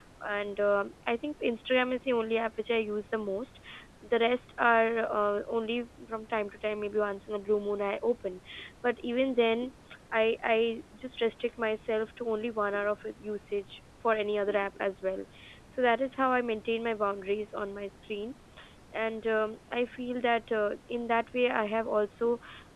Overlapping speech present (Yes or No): No